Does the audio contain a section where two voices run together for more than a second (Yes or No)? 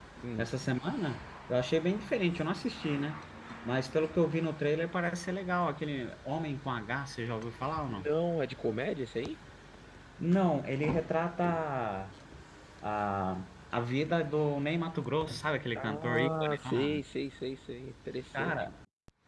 Yes